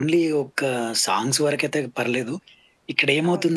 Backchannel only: Yes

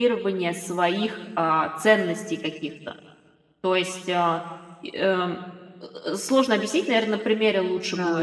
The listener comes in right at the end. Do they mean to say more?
Yes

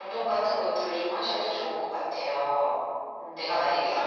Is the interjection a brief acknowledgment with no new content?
Yes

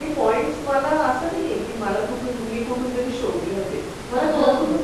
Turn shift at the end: No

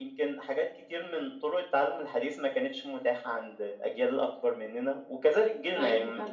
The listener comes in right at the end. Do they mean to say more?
No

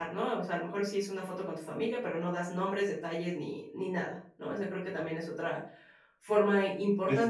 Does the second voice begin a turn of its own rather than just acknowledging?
Yes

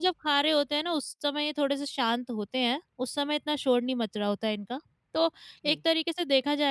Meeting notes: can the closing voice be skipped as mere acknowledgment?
Yes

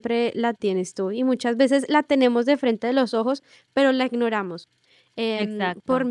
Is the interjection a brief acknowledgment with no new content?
Yes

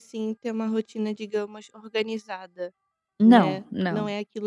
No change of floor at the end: Yes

